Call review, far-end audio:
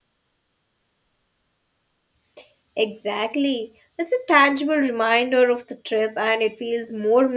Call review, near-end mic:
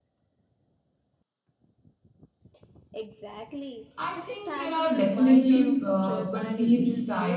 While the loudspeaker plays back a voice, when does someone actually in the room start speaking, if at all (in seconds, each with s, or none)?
4.0 s